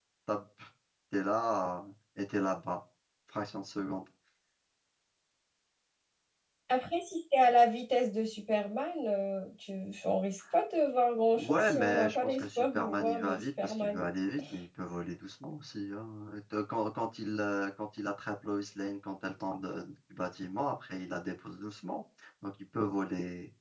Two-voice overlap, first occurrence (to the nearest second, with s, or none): 11 s